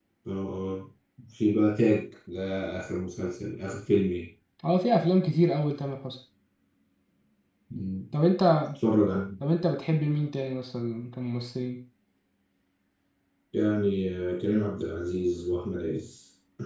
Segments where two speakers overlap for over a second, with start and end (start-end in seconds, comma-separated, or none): none